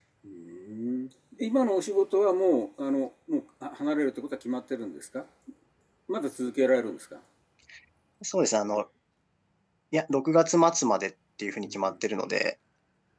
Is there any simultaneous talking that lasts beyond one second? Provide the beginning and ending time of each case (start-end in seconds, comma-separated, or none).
none